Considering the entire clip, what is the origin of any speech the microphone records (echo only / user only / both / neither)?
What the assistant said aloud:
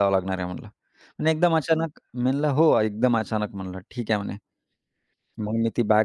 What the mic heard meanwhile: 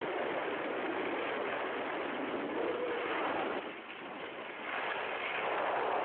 neither